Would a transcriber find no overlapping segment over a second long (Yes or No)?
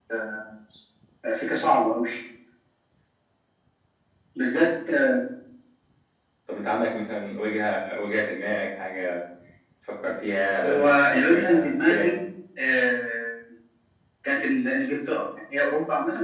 No